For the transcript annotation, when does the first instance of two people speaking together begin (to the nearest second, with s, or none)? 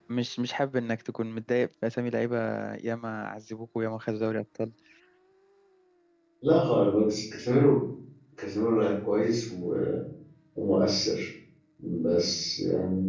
none